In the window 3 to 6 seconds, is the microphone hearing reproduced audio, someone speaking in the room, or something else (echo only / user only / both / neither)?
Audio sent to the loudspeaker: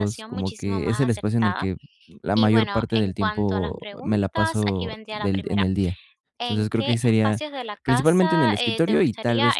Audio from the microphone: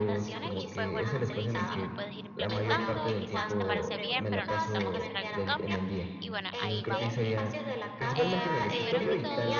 both